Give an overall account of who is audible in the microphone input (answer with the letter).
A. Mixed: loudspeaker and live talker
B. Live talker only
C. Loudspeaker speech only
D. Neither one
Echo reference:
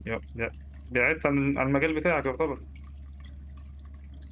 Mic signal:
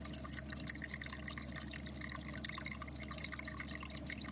D